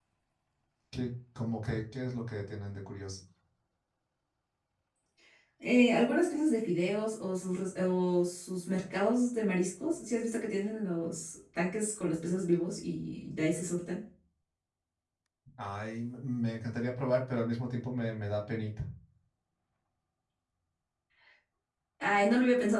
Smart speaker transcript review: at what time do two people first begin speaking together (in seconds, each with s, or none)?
none